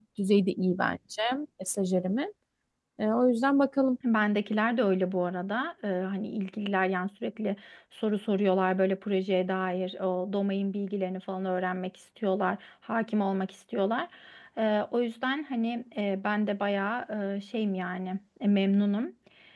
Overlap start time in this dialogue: none

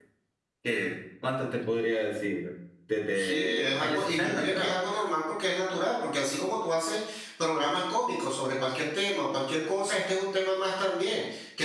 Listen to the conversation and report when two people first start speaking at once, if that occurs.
3.1 s

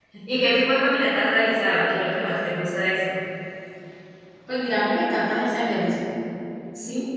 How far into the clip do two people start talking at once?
none

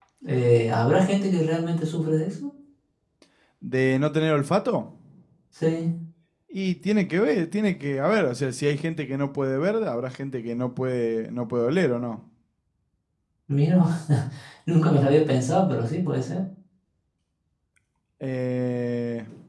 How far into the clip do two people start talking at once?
none

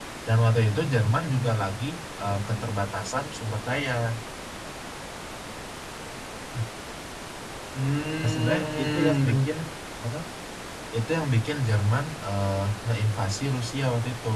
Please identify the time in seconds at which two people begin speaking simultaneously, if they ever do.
8.2 s

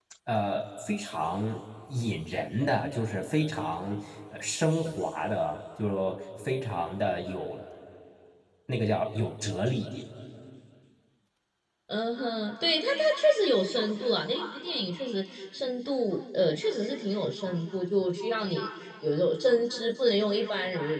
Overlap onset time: none

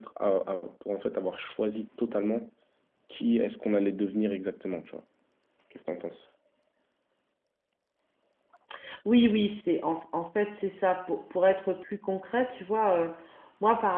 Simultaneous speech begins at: none

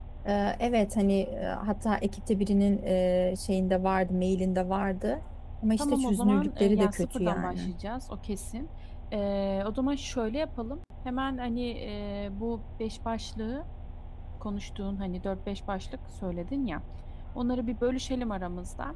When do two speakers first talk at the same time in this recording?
5.8 s

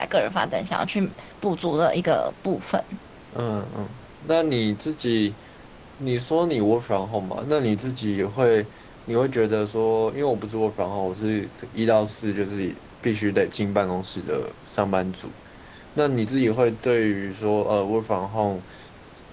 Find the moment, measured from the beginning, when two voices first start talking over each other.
none

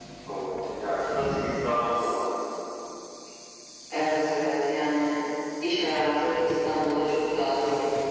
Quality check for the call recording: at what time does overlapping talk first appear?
none

